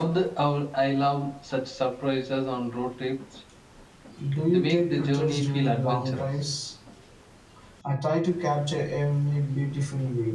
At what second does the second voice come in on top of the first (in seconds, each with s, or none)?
4.5 s